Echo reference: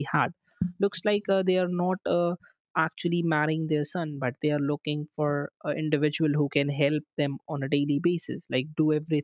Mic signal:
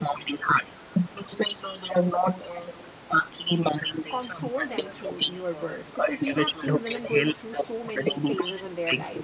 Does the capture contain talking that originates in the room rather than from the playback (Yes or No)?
Yes